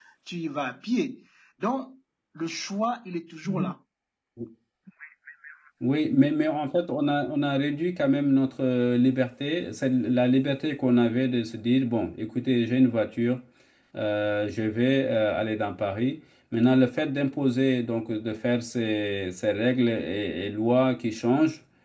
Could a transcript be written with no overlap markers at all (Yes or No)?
Yes